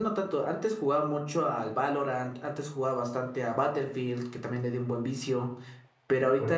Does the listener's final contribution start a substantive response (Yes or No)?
No